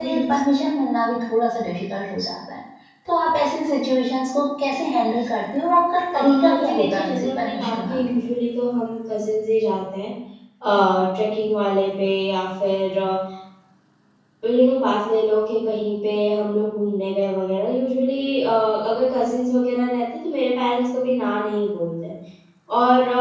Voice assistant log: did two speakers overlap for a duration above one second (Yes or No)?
Yes